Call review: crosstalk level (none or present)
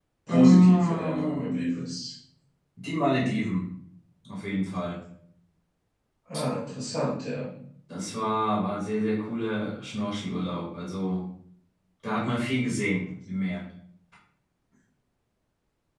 present